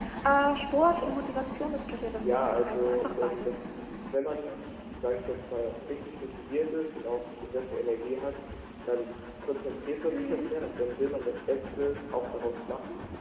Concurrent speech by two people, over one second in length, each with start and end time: 2.2-3.7

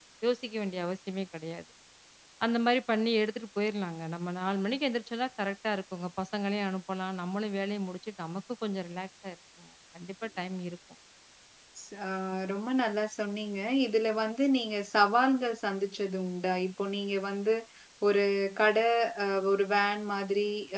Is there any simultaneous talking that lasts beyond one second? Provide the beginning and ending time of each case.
none

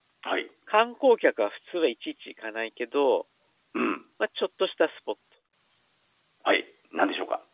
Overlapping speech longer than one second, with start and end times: none

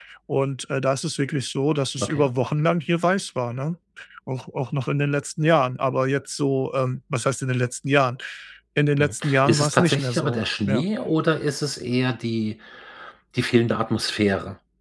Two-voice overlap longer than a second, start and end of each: 9.0-10.8

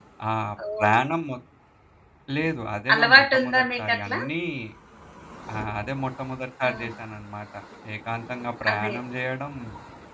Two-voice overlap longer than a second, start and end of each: 2.9-4.2

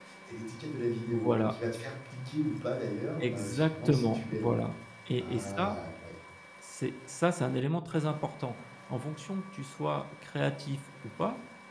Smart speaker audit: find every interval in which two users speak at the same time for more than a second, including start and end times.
3.2-4.5

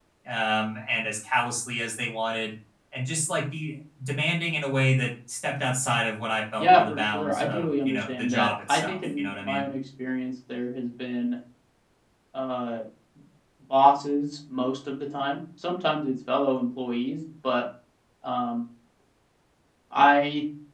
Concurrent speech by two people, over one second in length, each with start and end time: 6.6-9.7

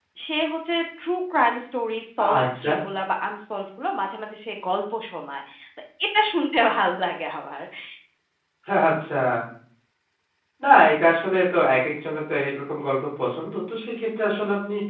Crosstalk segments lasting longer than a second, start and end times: none

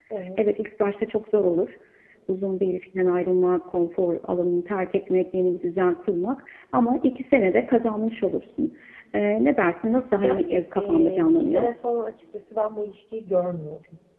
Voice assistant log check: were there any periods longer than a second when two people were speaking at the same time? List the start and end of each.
10.2-11.7

